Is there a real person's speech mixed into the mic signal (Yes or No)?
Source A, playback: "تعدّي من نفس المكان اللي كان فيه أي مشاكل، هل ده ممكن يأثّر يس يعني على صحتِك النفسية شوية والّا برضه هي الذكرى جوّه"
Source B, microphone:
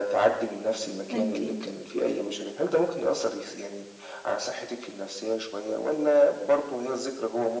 Yes